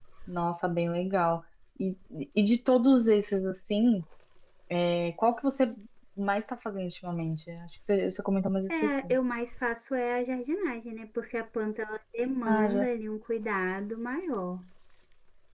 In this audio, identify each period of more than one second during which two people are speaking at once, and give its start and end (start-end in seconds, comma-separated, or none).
none